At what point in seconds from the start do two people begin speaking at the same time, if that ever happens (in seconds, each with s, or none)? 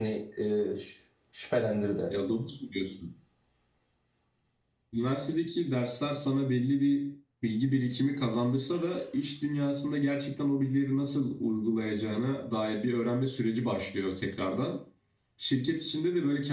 none